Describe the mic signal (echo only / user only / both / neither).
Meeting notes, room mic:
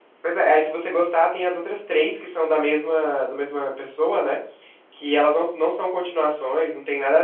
user only